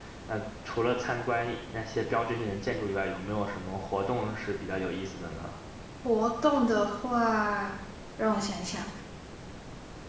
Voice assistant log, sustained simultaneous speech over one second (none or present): none